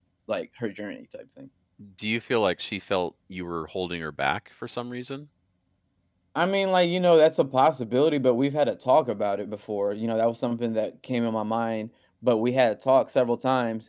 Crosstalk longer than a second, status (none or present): none